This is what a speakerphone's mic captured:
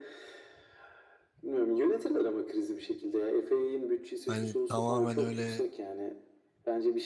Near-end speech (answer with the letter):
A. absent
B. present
B